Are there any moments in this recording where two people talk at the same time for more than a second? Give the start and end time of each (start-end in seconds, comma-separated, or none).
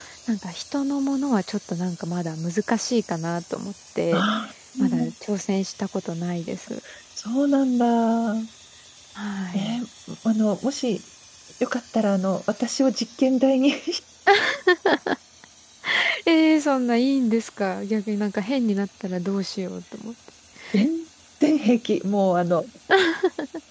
none